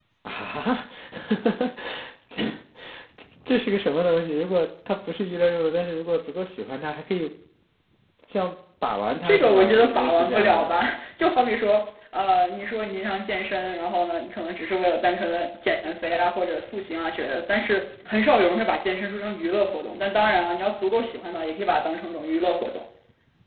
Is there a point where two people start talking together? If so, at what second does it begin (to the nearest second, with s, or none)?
9 s